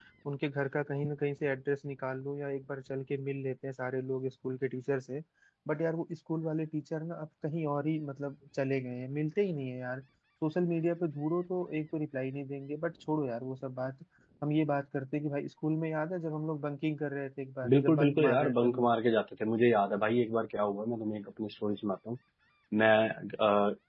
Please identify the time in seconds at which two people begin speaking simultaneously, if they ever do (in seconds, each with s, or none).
17.6 s